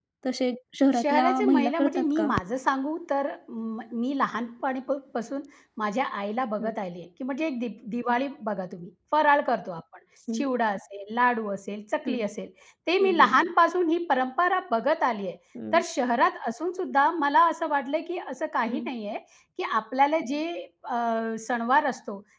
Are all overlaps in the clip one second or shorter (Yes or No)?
No